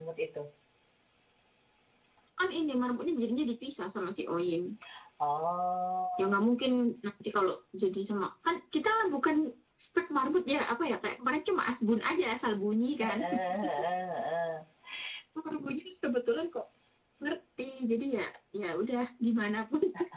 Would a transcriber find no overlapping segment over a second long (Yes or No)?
Yes